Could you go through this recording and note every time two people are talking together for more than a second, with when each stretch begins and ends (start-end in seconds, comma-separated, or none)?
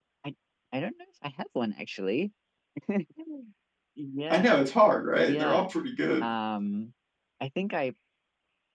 none